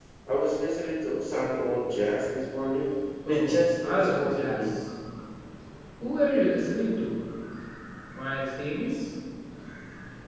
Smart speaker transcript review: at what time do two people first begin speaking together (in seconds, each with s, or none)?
3.2 s